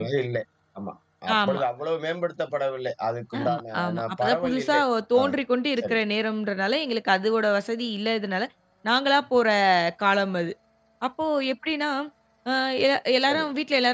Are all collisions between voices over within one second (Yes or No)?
No